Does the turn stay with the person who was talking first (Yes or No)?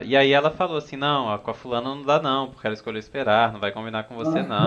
Yes